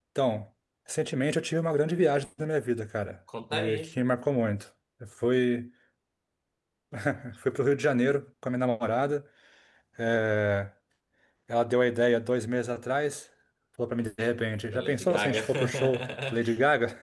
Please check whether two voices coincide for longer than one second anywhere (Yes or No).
Yes